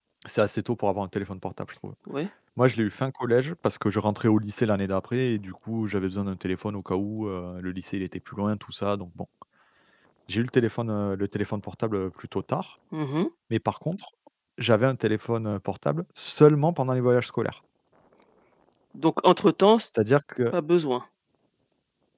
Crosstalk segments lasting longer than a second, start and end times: none

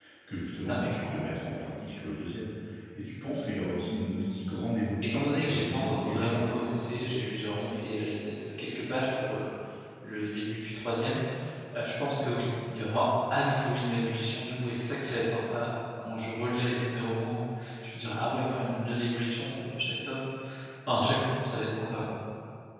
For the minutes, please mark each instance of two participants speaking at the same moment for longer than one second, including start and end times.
5.0-6.6

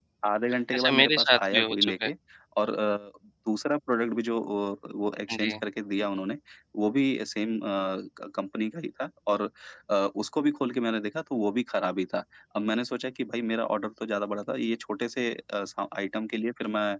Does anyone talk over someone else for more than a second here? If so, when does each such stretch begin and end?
0.8-2.1

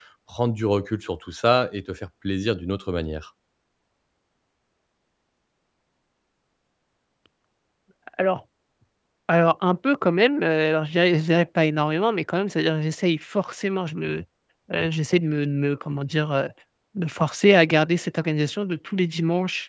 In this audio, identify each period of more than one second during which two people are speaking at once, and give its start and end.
none

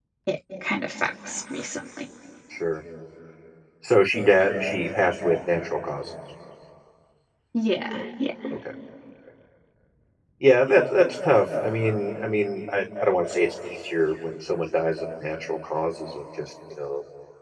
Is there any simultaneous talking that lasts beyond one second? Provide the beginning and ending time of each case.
none

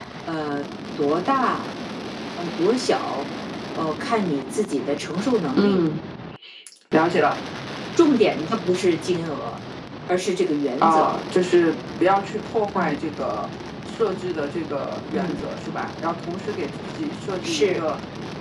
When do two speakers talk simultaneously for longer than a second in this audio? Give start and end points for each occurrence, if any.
none

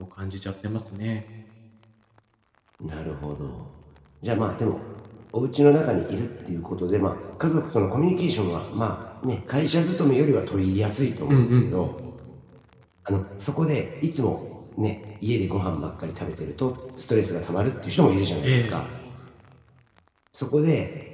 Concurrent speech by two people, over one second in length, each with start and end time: none

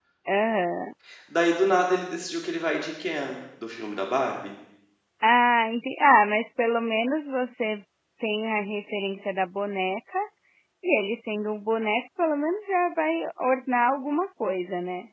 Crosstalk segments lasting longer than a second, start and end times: none

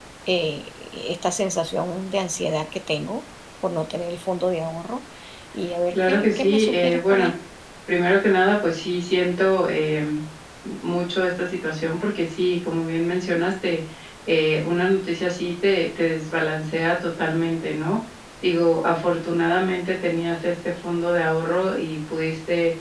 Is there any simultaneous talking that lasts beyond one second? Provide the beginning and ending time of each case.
5.9-7.3

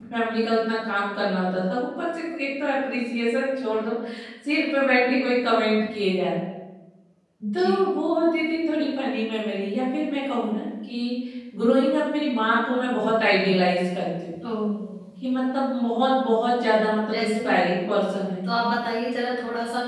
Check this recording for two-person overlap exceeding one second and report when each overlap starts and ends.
none

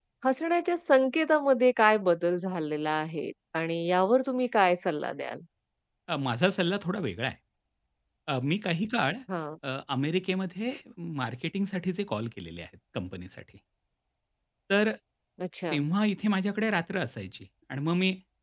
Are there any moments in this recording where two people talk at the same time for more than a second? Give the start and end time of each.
none

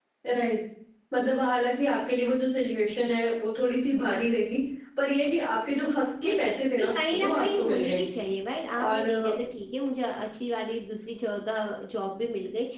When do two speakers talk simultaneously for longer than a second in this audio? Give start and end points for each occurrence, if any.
6.2-8.0

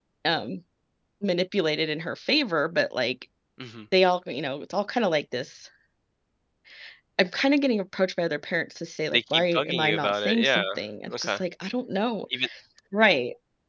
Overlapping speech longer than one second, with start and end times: 9.1-10.6

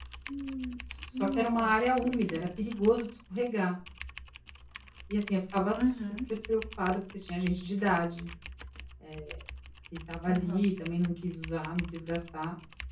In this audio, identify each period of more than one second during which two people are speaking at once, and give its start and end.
1.1-2.4

